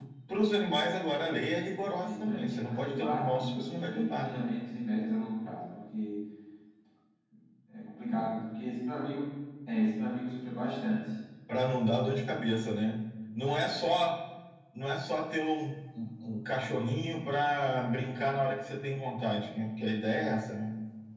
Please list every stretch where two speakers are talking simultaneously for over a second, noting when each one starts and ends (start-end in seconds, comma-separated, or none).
2.0-4.3